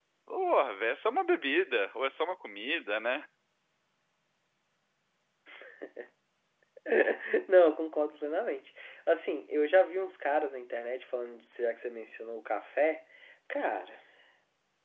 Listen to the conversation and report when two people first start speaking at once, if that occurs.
none

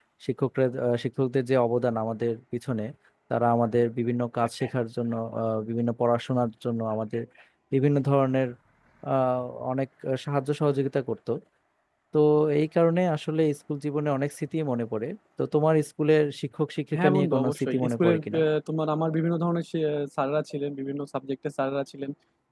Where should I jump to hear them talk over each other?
16.9 s

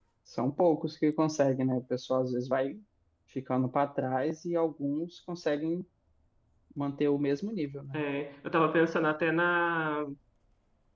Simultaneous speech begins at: none

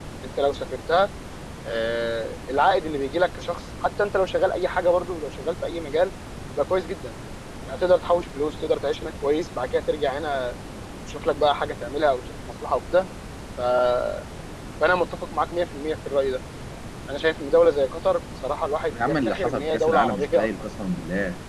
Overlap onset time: 18.9 s

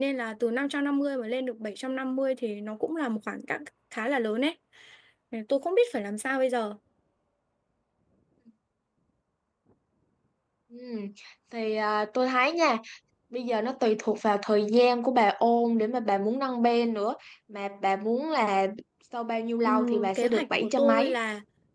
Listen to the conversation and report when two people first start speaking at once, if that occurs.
19.6 s

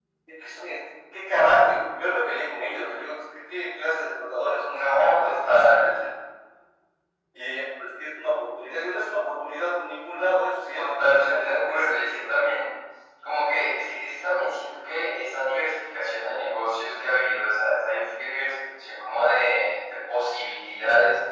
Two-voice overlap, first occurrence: 4.8 s

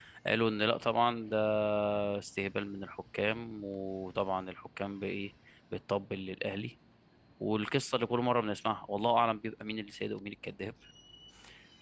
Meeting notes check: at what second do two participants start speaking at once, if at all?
none

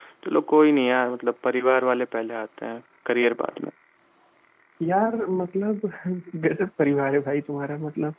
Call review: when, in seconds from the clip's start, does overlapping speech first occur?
none

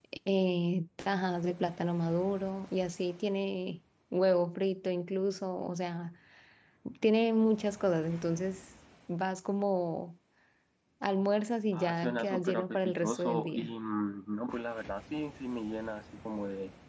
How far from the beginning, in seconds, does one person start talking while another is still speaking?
11.7 s

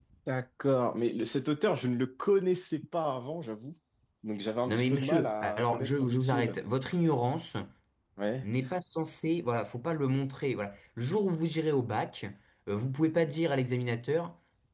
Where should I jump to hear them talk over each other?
4.7 s

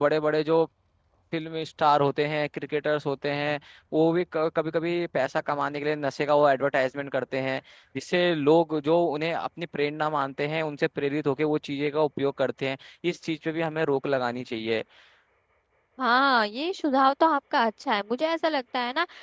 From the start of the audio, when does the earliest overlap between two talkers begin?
none

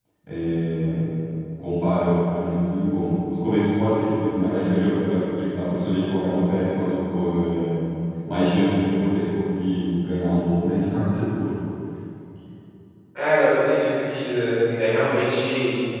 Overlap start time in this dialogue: none

